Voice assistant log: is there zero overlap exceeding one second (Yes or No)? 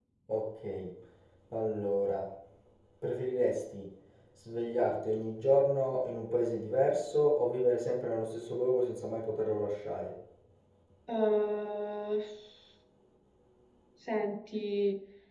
Yes